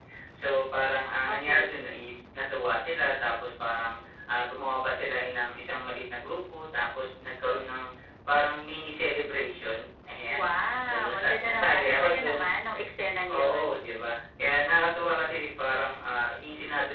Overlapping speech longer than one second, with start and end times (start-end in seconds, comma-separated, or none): 10.9-12.4